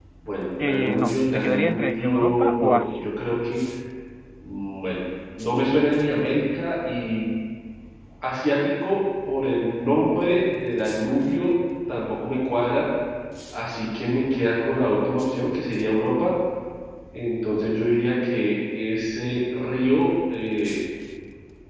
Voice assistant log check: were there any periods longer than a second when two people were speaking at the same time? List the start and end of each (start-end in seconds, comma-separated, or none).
0.6-3.0